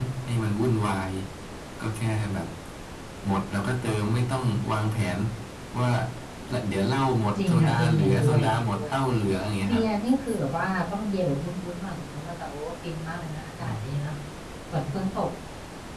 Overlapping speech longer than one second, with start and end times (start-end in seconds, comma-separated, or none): 7.4-8.9